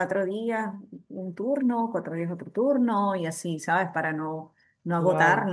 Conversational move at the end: listening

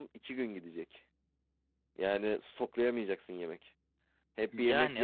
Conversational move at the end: listening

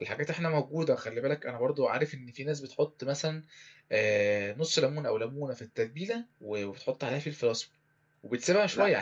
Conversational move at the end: listening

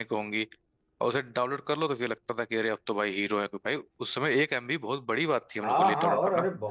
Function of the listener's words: taking over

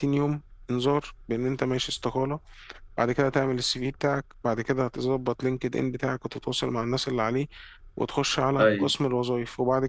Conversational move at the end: listening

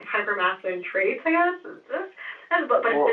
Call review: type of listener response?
listening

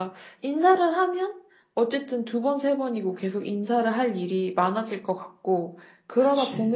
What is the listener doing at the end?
listening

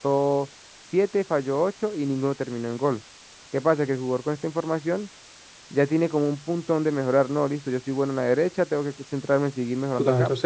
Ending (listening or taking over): taking over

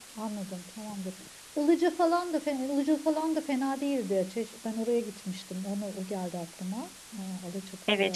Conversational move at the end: taking over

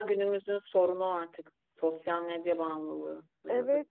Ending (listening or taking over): taking over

